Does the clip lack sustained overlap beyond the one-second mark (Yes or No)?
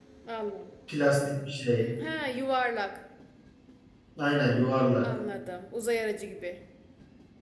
Yes